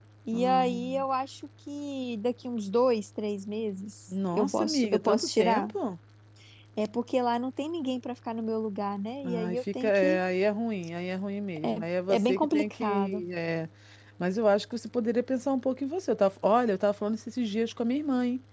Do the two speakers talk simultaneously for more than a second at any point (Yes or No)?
Yes